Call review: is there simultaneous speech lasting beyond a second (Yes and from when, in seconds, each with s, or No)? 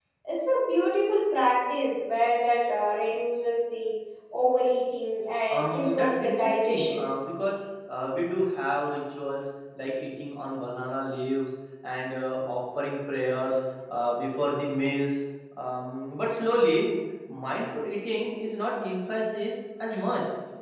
Yes, from 5.5 s